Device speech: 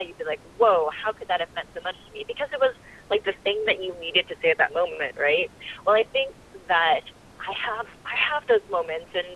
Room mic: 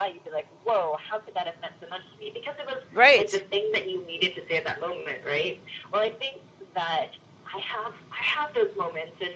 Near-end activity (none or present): present